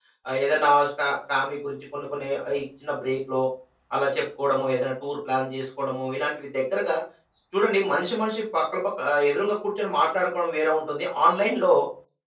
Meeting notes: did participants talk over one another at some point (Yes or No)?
No